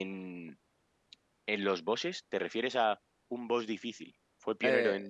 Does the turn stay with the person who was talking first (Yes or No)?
No